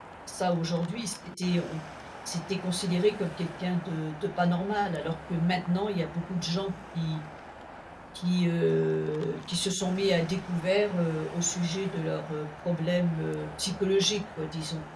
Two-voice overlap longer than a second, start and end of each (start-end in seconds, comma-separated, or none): none